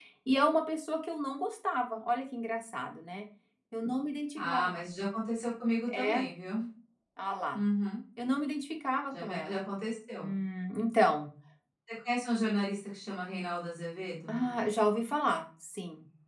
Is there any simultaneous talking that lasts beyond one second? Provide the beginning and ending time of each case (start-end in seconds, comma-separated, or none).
none